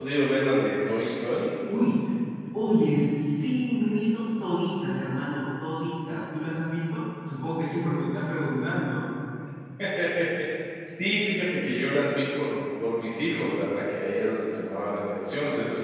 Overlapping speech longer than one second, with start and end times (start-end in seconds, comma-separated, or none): none